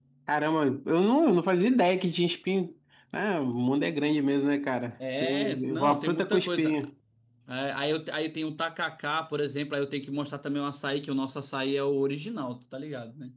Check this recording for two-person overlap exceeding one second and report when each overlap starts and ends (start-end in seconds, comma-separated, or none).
5.2-6.8